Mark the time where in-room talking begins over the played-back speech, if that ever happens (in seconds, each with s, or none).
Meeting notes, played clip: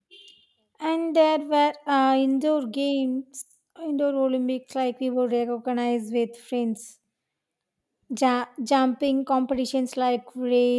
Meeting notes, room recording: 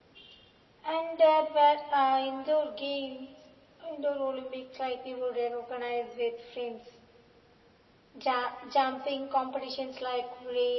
none